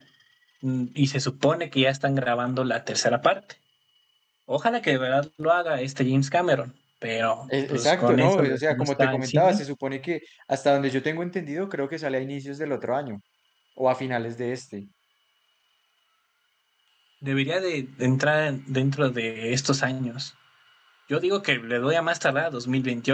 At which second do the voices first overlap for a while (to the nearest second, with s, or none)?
7 s